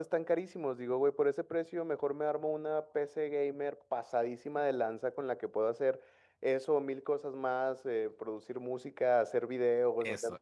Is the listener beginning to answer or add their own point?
Yes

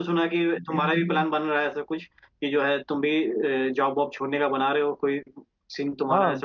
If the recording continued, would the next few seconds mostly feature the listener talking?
Yes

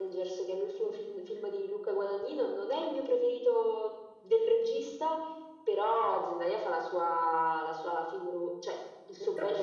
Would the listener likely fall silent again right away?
No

